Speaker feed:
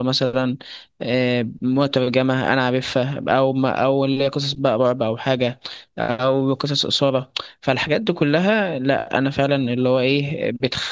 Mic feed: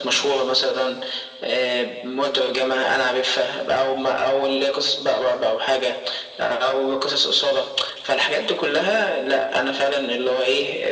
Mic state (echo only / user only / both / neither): echo only